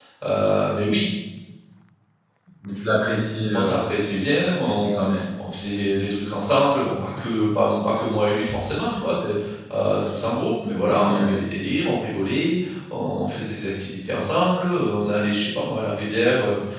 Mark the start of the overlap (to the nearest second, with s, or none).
4 s